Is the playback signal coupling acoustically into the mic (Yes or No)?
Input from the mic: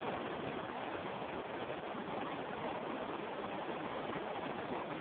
No